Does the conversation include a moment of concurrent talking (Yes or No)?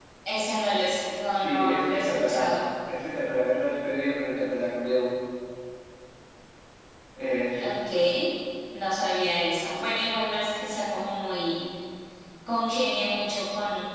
Yes